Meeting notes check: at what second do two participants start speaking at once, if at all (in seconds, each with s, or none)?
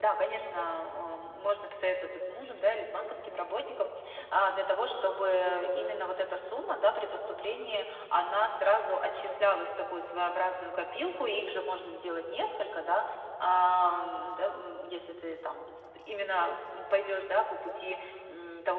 none